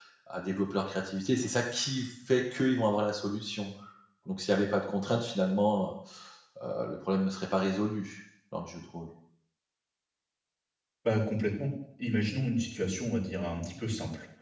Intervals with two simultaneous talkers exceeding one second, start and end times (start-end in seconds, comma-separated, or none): none